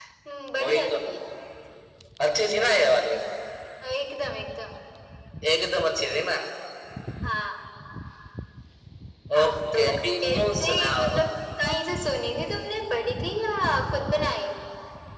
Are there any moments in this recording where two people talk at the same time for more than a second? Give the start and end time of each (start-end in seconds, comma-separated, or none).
9.4-11.1